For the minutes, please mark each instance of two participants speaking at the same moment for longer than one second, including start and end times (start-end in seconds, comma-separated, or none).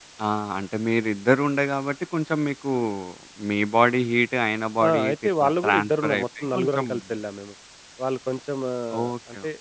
4.8-6.9